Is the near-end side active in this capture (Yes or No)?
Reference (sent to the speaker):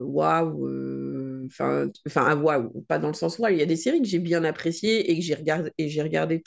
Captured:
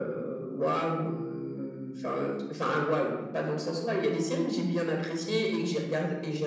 No